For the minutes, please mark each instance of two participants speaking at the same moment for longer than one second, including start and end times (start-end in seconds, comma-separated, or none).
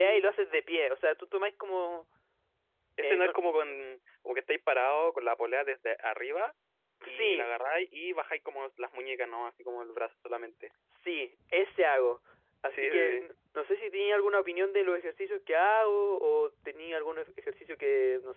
none